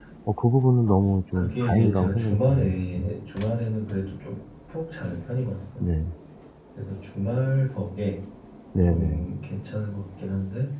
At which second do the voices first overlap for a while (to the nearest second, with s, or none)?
1 s